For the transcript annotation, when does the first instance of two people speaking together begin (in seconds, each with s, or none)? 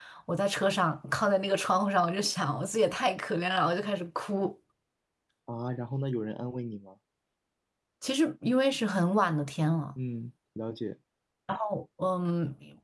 none